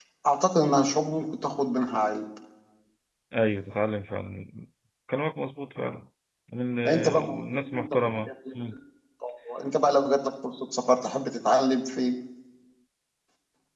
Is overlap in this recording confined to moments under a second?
No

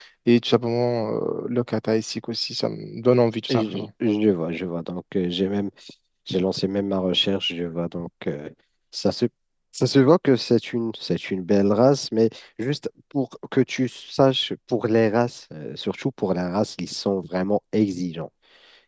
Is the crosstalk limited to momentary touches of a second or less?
Yes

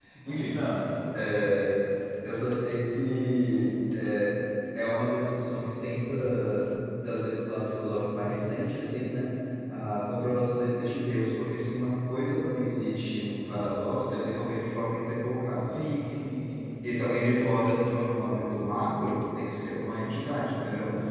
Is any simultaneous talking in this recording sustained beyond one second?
No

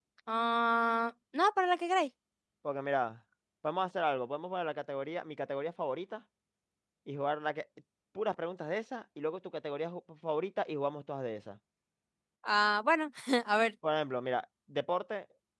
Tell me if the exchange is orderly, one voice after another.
Yes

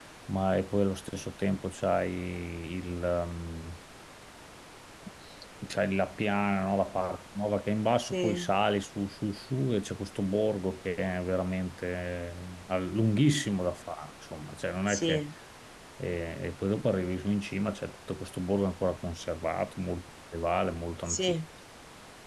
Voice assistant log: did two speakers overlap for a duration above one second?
No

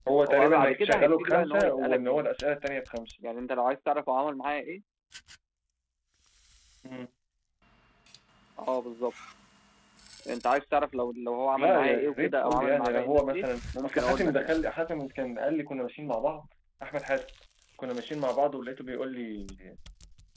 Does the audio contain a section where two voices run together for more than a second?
Yes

